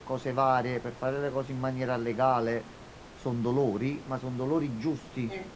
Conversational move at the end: listening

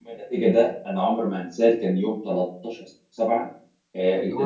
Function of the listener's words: listening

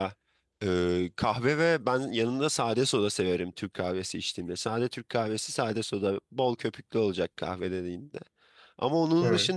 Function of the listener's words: listening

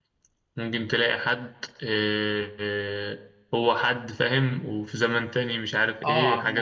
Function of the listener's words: taking over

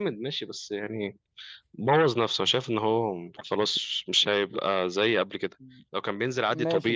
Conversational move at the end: taking over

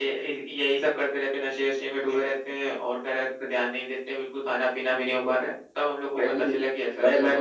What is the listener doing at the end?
taking over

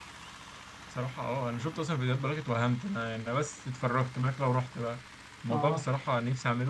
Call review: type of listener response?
listening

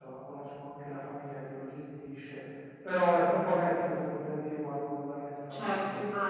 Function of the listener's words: taking over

